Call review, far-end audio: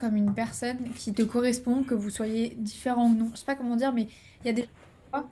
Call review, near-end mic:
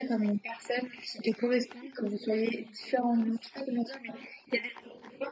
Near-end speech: none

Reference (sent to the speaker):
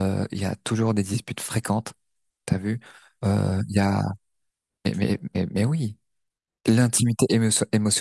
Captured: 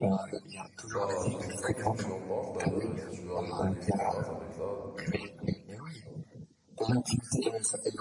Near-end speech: present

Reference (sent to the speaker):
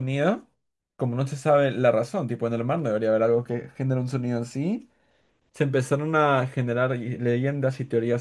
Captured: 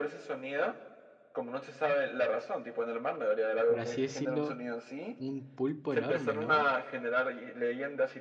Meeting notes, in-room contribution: present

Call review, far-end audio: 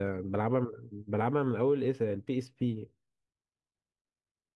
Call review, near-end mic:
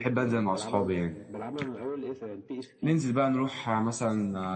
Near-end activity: present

